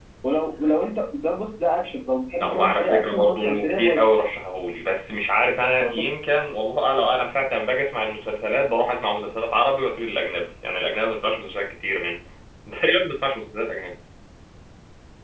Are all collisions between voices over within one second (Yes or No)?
No